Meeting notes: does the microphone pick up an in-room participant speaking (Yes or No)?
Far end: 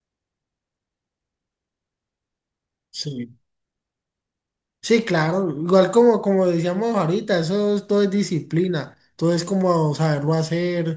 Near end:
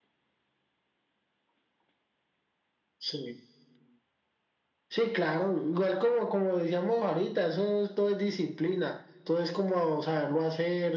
No